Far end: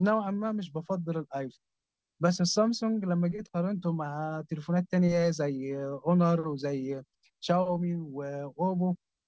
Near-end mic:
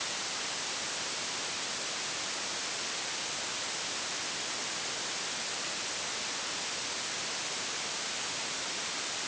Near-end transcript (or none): none